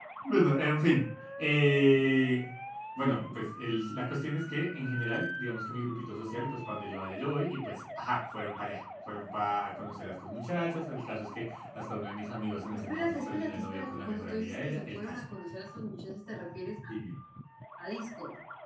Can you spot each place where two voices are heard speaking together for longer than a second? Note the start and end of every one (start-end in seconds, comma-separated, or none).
12.7-15.2